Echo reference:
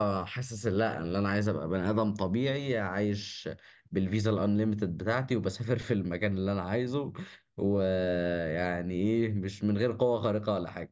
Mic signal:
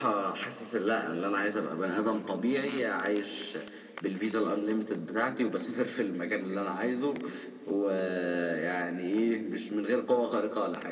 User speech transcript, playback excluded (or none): none